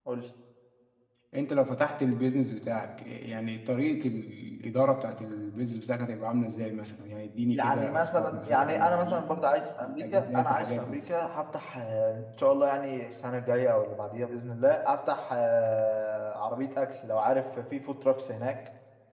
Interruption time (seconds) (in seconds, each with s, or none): 7.5 s